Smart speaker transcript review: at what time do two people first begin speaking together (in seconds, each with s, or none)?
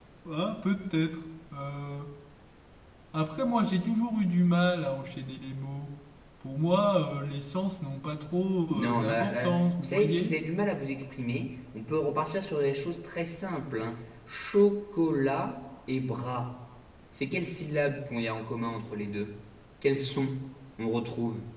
8.7 s